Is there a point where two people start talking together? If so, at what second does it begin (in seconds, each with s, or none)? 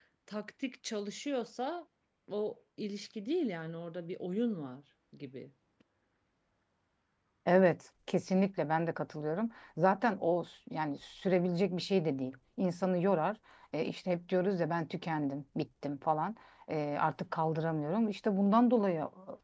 none